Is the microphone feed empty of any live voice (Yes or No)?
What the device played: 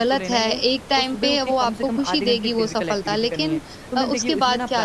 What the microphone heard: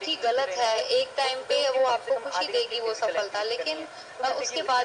Yes